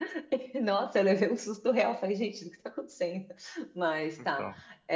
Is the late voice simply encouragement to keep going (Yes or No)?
Yes